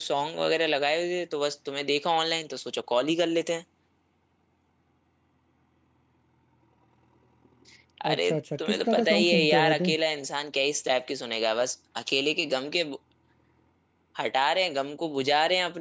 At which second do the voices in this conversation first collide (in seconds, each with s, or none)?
8.1 s